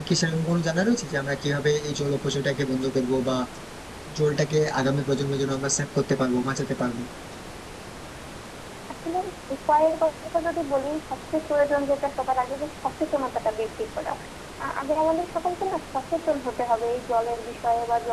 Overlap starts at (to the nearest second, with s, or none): none